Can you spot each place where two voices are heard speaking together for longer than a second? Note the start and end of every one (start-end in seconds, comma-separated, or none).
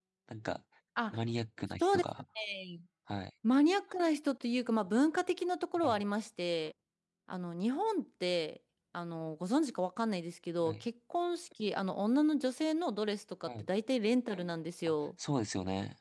none